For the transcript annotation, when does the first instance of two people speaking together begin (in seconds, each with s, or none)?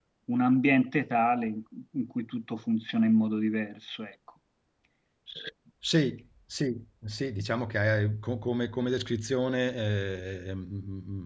none